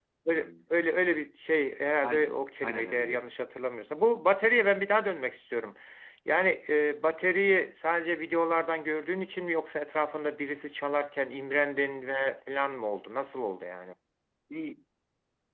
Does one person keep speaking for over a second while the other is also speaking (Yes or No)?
Yes